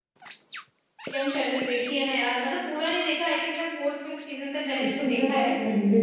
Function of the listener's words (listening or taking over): taking over